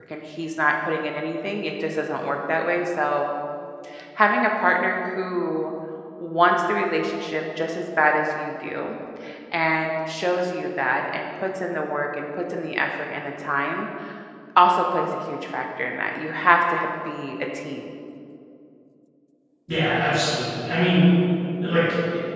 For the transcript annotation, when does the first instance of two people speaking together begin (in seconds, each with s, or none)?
none